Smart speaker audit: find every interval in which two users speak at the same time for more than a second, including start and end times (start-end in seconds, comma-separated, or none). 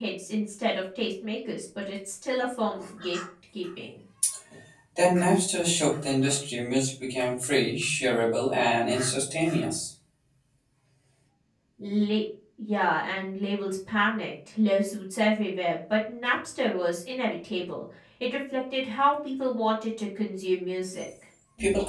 none